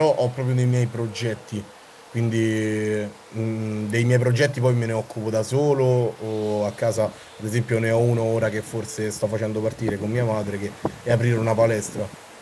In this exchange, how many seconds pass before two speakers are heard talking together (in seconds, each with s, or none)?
none